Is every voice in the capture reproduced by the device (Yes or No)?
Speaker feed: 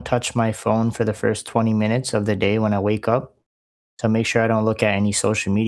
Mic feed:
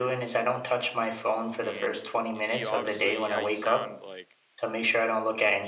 No